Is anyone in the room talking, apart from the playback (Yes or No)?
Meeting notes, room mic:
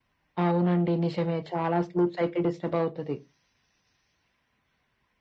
No